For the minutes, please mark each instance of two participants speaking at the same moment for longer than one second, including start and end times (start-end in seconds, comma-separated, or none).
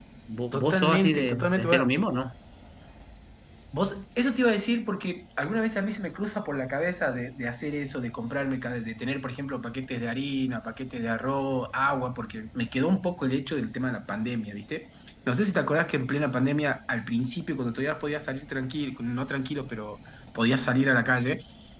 0.5-1.9